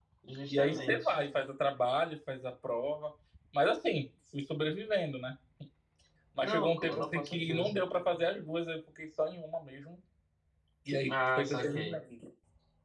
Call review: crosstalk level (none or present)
present